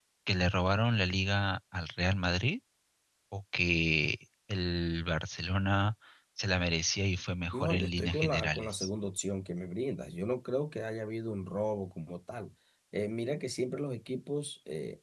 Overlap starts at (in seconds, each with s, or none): 7.5 s